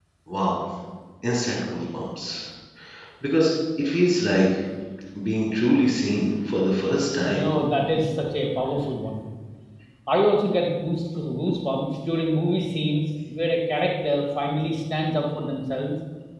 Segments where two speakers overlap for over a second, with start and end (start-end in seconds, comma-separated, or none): none